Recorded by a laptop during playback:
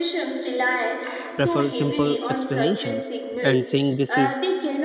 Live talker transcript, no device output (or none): prefers simple explanations, and saying this is